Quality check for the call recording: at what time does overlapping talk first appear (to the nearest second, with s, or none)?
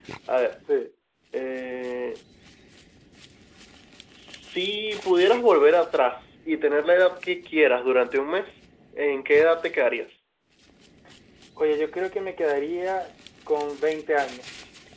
none